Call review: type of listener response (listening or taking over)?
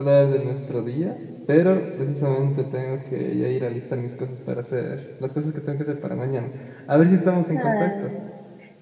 taking over